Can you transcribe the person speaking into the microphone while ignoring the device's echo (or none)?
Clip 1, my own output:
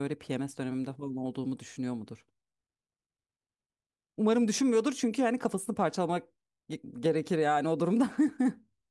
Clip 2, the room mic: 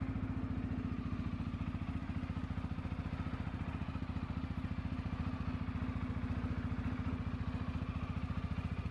none